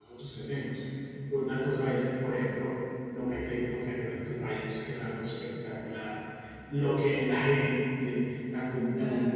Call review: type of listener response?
listening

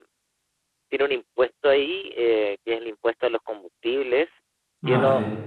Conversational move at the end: listening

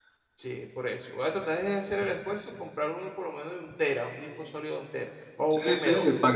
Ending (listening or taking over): taking over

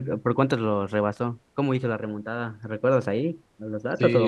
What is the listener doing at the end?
taking over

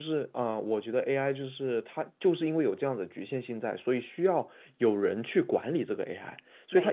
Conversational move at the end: listening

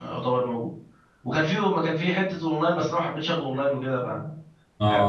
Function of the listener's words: taking over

